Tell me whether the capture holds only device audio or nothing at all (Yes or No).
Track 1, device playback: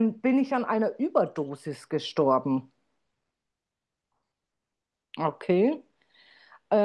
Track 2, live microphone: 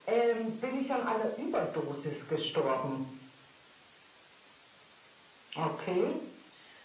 Yes